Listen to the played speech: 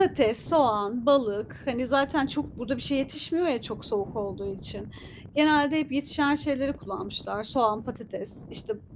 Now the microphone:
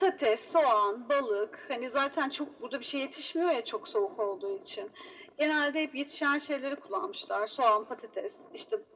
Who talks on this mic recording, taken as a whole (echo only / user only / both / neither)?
echo only